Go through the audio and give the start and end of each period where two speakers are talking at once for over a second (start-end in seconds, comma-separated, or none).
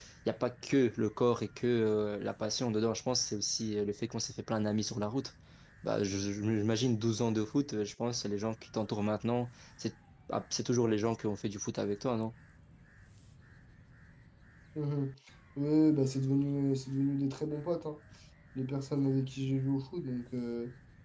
none